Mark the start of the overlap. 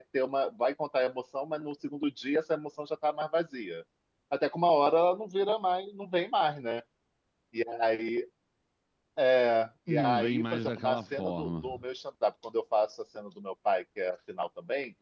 10 s

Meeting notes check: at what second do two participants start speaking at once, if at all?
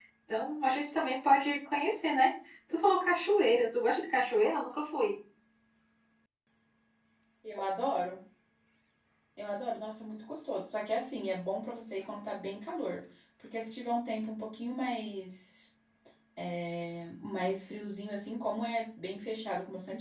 none

